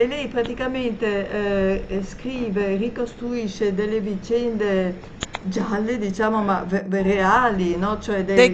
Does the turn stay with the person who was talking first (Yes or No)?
No